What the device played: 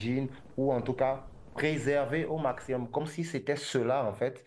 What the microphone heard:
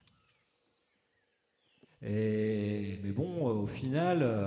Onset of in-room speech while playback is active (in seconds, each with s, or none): 2.0 s